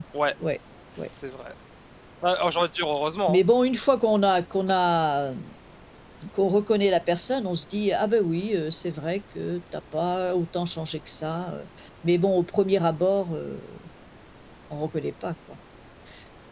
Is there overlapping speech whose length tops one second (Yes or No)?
No